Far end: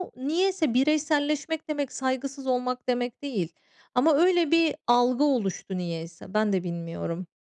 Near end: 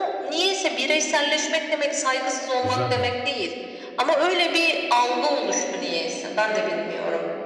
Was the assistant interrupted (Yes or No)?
Yes